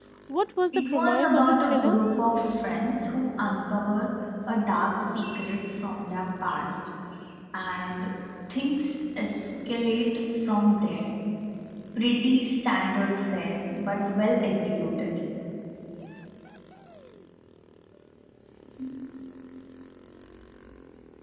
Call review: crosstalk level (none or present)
present